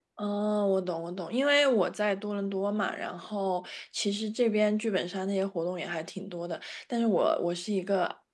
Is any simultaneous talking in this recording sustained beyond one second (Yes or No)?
No